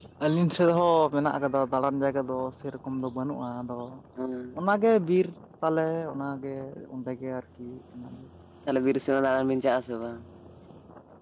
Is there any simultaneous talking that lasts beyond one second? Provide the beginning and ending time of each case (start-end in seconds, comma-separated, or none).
none